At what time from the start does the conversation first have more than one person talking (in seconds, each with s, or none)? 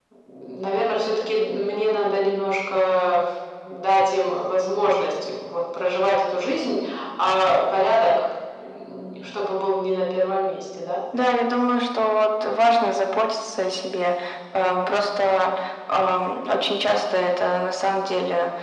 none